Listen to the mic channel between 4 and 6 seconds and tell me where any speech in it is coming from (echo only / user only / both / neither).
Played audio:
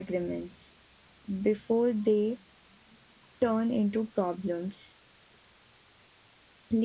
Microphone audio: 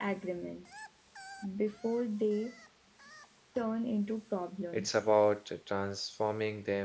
both